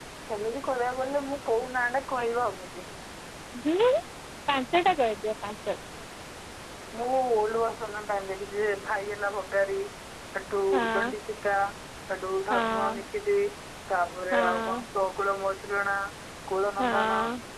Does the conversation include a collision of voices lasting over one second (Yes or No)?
No